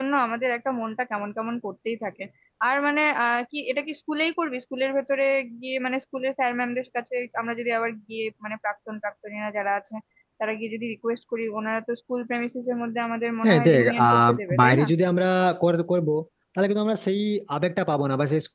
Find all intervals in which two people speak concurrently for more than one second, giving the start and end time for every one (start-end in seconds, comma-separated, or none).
13.4-14.9